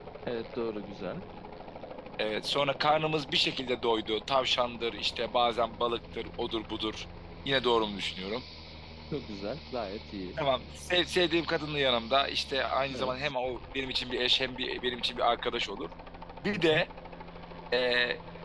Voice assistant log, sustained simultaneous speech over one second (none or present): none